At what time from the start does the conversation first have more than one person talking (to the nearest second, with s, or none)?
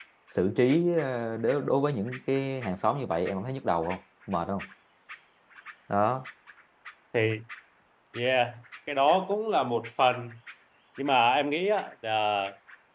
none